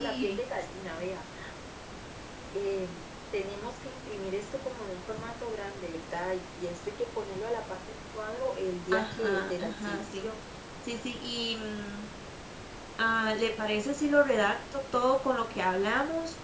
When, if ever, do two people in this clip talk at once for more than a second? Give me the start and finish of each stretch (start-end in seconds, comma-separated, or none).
8.9-10.3